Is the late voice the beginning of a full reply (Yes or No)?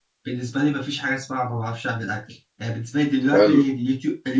No